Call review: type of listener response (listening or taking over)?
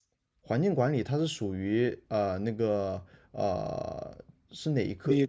taking over